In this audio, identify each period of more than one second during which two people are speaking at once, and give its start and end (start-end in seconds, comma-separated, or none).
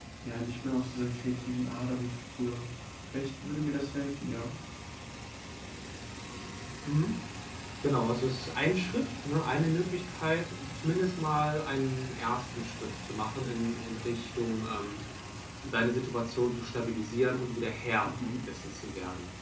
none